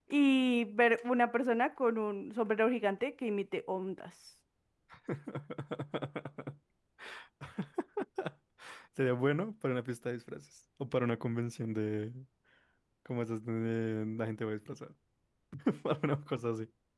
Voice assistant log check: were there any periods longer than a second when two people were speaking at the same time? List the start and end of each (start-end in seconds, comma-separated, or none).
none